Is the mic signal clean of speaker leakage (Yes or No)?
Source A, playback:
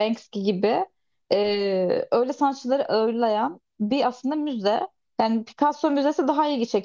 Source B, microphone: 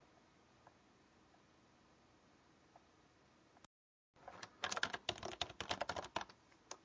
Yes